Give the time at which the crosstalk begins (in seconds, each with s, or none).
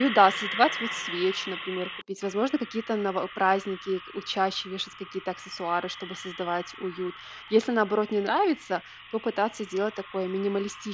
none